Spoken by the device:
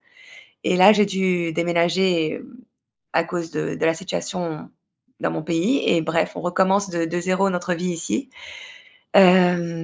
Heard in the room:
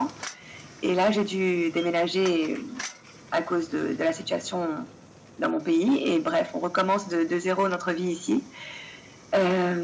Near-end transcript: none

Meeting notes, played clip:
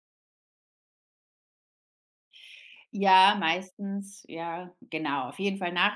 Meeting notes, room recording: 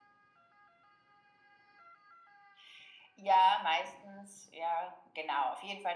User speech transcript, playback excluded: none

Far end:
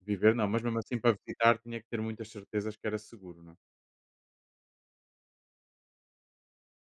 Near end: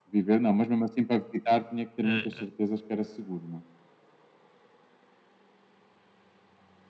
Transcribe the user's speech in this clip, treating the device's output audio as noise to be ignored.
É, é.

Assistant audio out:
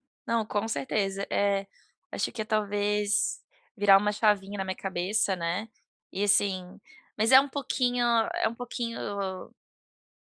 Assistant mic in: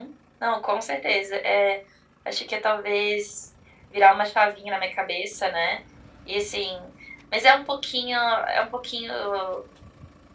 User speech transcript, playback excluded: none

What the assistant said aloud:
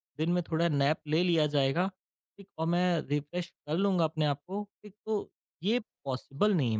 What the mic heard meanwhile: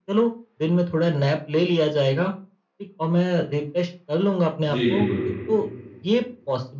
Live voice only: जी, बिल्कुल।

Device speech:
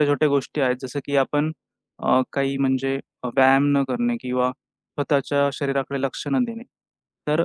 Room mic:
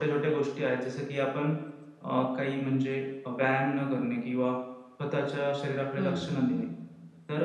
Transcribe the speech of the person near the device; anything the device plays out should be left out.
हं, हं, हं.

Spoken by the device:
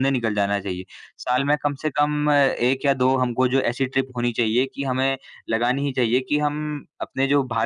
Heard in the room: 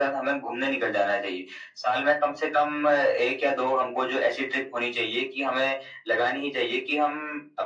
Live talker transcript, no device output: none

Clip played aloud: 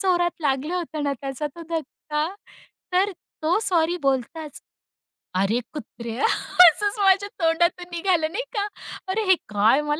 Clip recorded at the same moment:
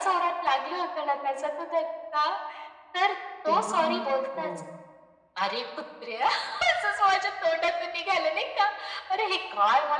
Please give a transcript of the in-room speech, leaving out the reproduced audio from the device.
तेव्हा मग हो.

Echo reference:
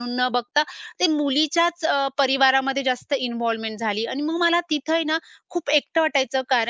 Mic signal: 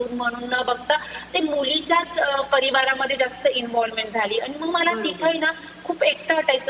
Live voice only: बरोबर.

